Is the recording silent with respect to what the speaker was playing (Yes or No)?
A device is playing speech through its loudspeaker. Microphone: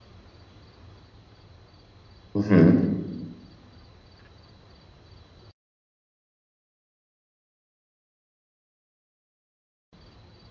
Yes